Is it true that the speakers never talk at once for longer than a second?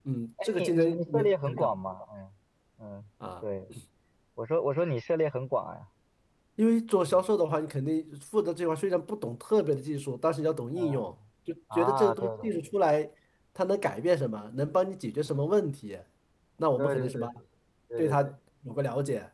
No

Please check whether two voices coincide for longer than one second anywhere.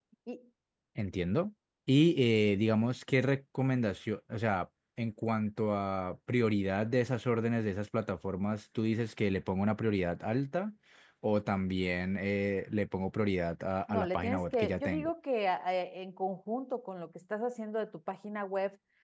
Yes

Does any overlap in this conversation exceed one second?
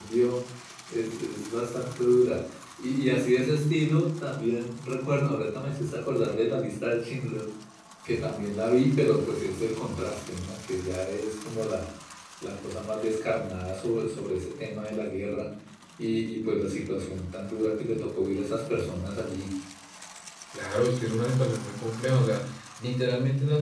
No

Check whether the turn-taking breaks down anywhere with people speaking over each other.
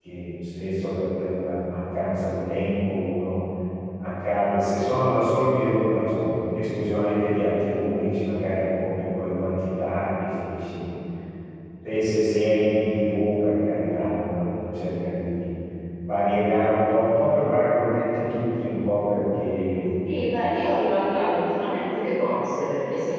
No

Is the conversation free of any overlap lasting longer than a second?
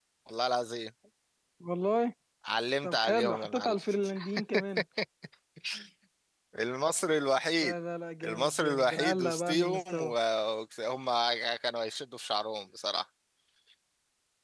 No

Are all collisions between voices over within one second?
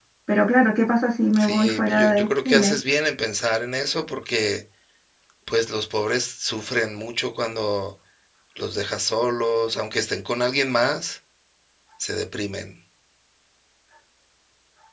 No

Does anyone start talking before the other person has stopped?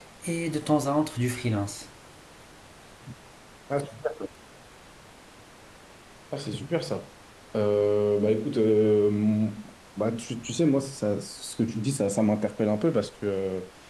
No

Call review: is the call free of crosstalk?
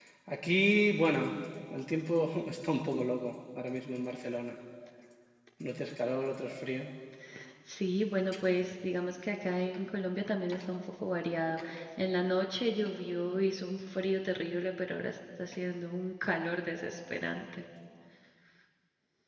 Yes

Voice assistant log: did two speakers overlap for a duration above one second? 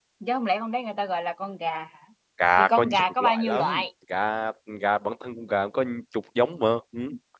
Yes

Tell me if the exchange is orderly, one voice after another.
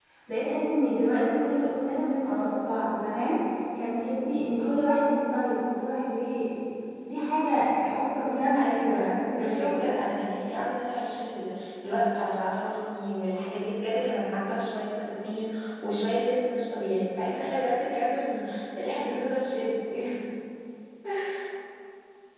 No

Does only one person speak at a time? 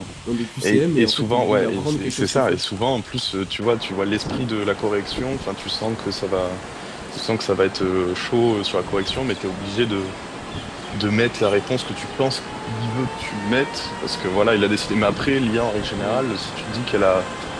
No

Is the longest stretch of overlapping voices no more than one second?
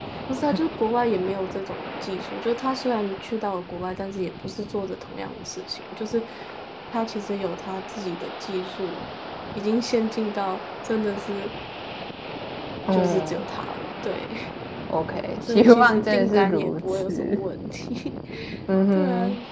No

